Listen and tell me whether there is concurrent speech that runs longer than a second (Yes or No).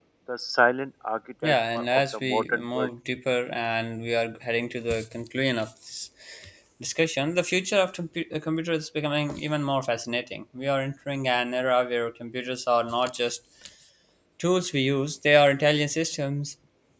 Yes